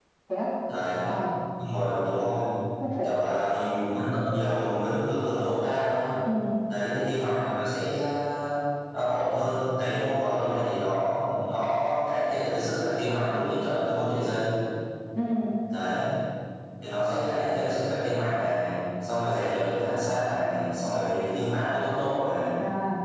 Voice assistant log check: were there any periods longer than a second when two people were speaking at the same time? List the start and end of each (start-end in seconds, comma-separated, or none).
none